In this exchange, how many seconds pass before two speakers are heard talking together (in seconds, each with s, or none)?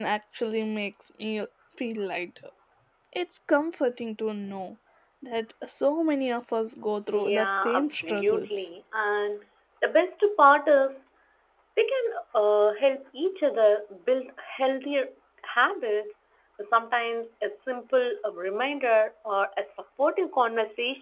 7.1 s